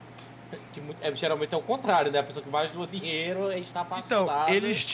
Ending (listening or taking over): taking over